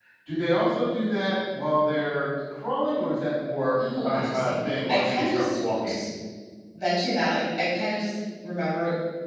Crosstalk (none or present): present